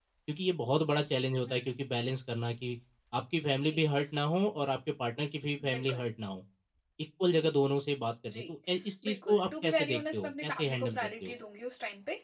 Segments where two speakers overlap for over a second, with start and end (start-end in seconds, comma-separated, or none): 9.1-11.3